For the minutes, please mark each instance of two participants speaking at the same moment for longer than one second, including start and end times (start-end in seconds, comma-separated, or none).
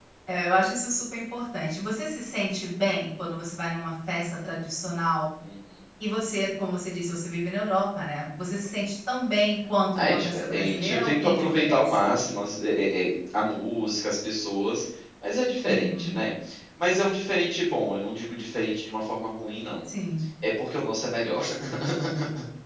10.0-12.0